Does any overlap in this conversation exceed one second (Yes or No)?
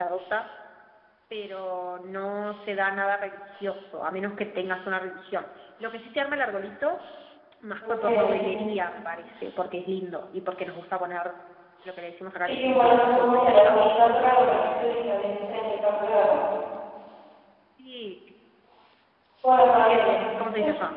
Yes